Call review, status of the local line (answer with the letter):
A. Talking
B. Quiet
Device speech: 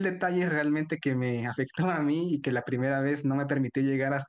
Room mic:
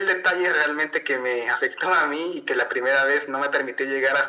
B